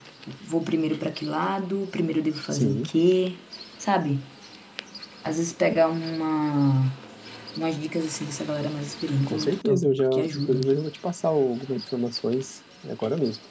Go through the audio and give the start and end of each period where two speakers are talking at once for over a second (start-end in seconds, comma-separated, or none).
9.3-10.7